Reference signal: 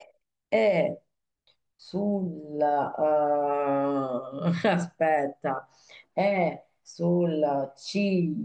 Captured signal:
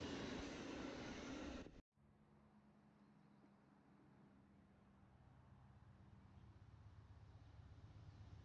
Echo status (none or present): none